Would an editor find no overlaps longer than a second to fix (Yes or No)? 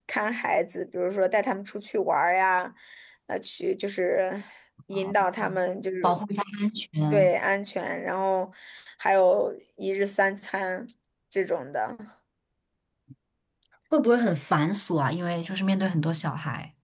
Yes